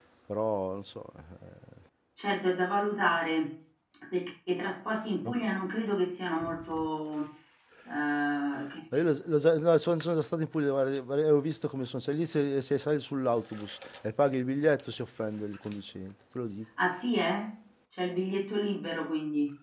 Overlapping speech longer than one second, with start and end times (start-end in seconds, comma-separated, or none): none